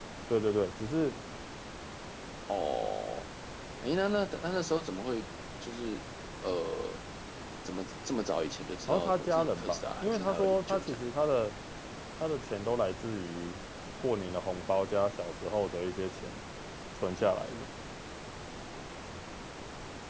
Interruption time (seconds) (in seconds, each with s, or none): 8.9 s